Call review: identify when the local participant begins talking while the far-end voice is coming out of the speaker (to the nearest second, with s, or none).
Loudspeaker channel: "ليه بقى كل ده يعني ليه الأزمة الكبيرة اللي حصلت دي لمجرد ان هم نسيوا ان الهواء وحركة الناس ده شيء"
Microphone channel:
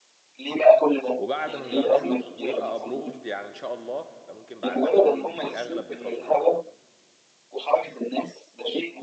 1 s